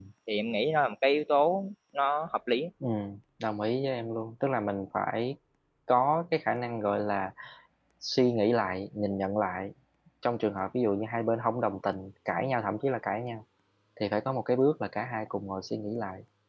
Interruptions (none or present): none